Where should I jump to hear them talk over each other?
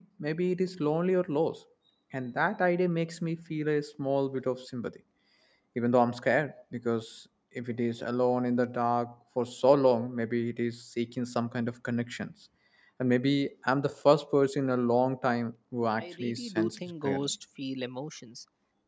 16.0 s

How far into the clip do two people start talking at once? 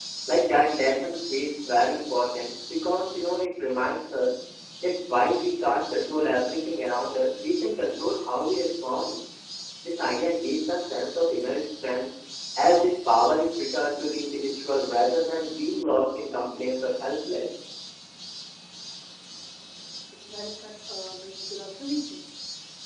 none

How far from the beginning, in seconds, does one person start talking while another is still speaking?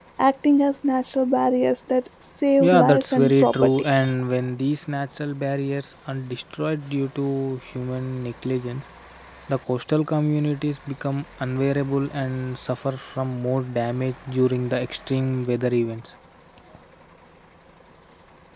2.6 s

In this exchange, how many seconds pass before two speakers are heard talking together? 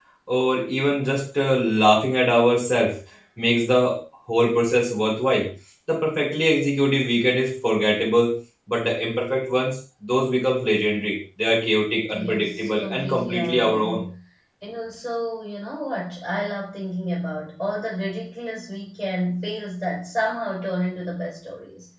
12.1 s

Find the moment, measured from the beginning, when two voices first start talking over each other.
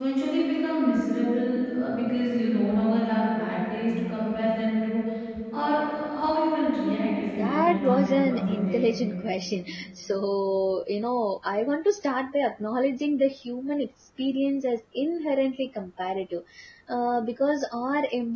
7.4 s

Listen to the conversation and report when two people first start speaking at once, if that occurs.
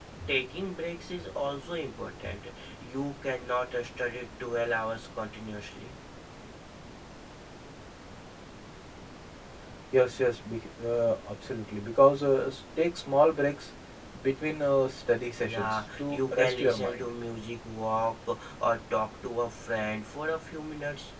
15.4 s

